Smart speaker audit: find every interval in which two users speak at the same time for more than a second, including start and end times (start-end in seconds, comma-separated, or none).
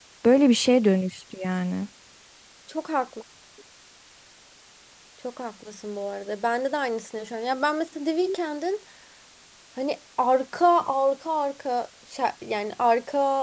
none